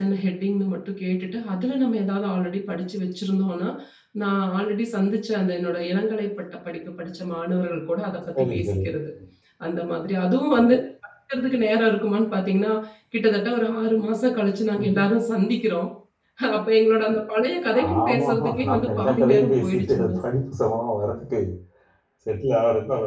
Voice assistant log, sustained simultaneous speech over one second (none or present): present